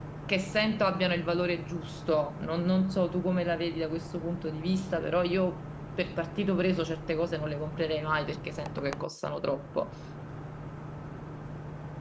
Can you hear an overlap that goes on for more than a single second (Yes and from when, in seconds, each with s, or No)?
No